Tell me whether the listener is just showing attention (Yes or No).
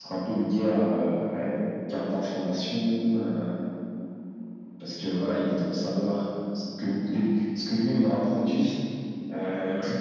Yes